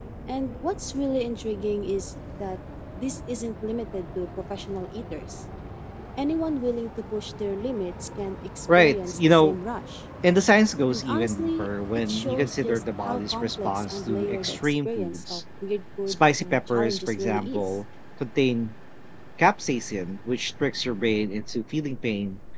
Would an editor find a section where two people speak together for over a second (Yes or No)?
Yes